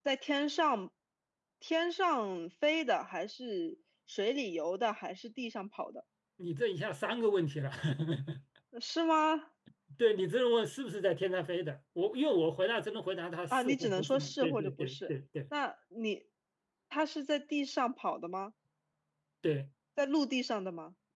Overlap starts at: 13.5 s

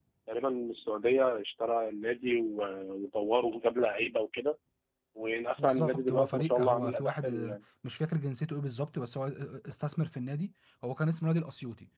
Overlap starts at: 5.6 s

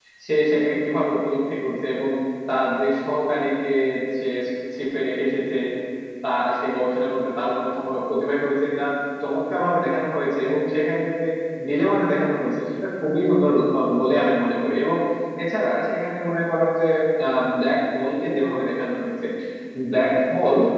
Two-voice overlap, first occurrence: none

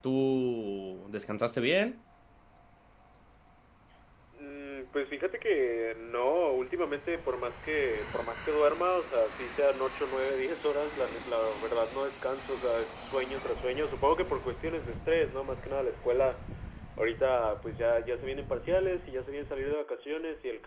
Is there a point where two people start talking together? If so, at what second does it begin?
none

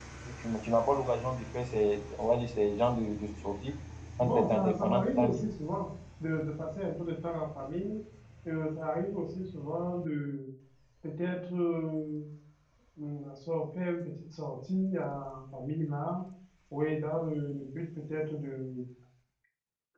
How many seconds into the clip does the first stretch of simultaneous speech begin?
4.2 s

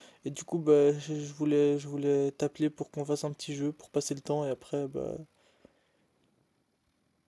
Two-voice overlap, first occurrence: none

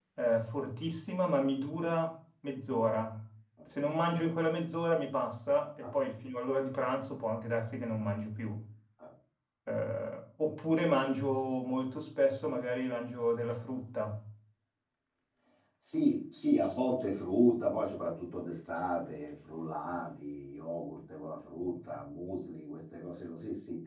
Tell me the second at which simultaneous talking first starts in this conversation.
none

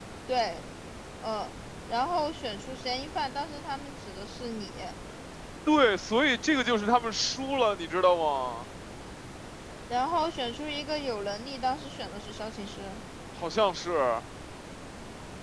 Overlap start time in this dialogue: none

